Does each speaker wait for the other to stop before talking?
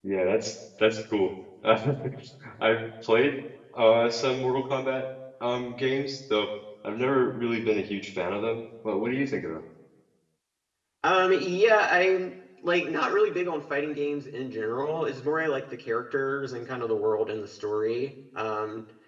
Yes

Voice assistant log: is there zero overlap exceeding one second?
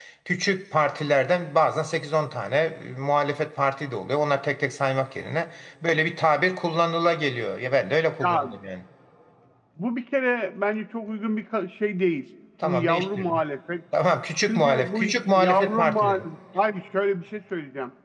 No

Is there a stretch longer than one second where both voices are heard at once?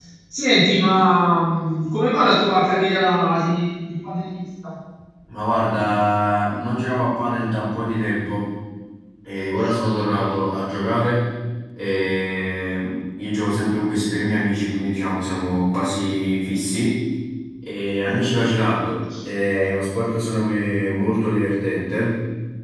No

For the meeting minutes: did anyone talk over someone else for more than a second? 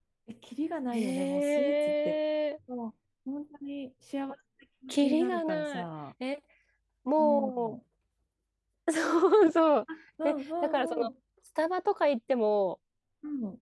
Yes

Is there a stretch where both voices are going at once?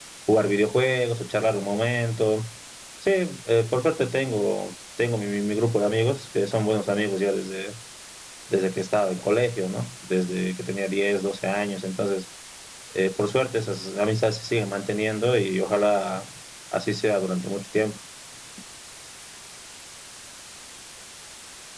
No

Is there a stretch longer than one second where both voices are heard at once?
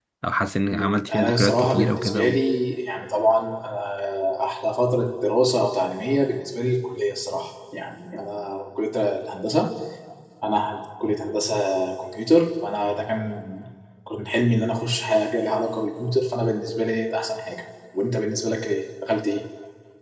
Yes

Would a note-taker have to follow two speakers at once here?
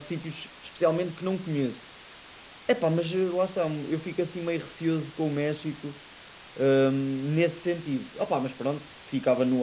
No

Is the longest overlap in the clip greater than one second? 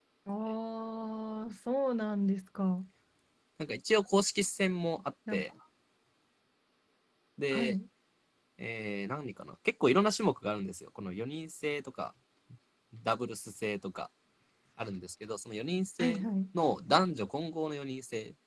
No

